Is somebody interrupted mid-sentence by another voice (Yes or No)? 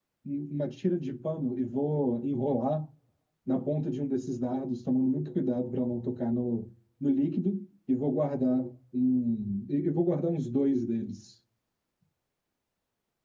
No